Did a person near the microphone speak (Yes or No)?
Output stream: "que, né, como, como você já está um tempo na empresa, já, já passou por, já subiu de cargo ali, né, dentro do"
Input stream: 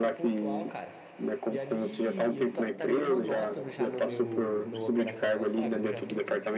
Yes